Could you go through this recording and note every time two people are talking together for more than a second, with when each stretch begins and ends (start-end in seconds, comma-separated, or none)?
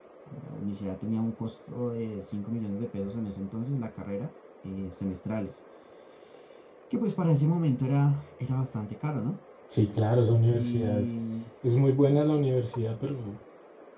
none